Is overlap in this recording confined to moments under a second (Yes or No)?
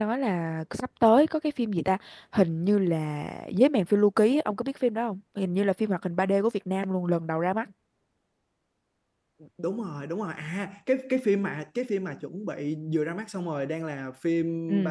Yes